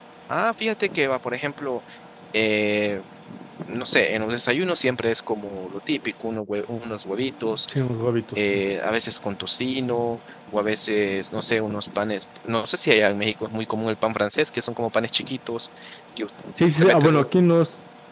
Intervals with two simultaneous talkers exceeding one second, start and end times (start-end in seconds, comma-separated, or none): none